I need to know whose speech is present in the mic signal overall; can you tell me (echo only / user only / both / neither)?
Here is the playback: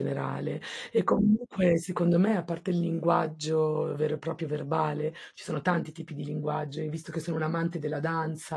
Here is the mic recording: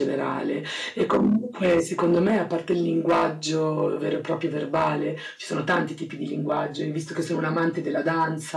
echo only